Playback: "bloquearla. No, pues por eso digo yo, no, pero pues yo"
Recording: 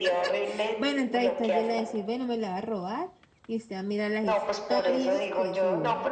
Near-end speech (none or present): present